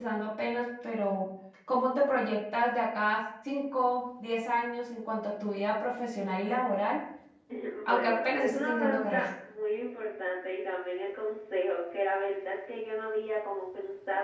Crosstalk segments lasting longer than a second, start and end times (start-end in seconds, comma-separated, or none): 7.9-9.3